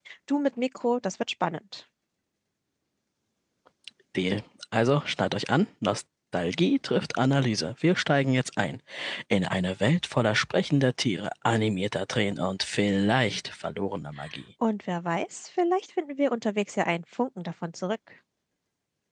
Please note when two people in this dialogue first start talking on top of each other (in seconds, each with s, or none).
none